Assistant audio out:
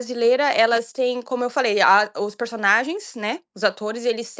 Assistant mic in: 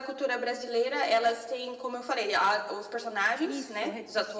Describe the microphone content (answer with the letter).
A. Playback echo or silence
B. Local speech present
B